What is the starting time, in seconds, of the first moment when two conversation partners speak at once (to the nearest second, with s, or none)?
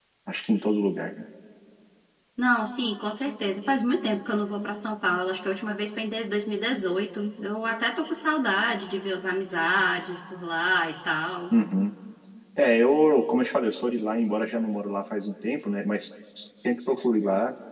none